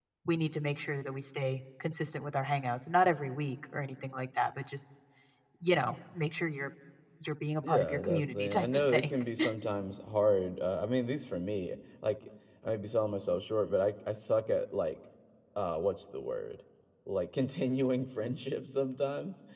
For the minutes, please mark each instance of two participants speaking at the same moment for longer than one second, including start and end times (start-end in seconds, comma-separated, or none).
7.6-9.1